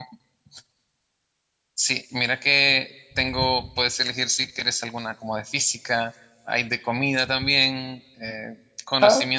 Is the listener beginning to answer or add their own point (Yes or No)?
No